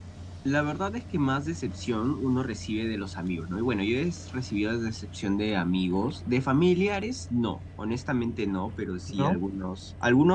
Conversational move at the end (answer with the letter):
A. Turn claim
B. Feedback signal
B